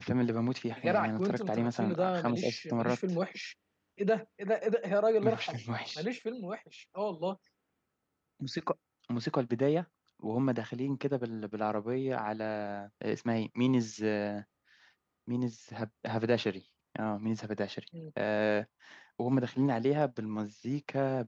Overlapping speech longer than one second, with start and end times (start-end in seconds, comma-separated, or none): 0.8-3.0